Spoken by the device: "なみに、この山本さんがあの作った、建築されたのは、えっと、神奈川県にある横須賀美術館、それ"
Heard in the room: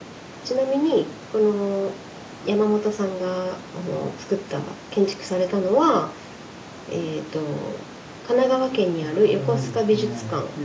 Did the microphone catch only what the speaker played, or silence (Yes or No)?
No